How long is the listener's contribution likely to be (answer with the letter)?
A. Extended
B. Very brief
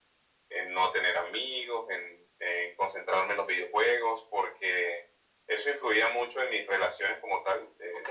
A